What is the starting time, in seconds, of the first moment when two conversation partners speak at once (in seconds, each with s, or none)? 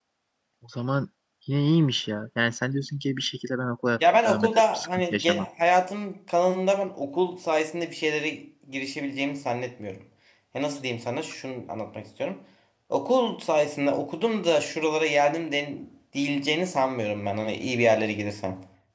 4.0 s